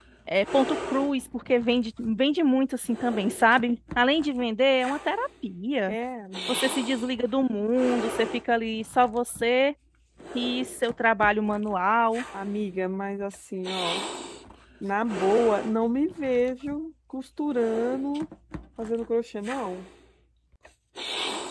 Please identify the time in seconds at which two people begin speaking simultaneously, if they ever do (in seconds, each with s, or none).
none